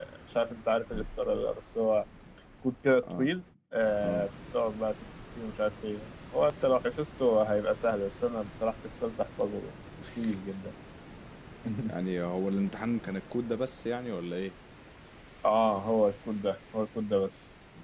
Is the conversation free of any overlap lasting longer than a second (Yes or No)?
Yes